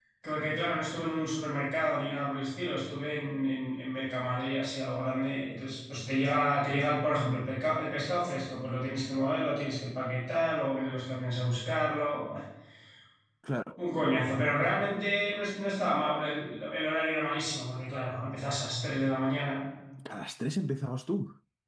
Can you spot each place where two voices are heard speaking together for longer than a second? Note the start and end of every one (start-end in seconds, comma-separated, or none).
none